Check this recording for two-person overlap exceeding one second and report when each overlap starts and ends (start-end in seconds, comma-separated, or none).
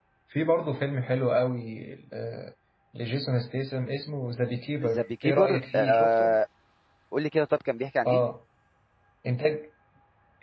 4.8-6.4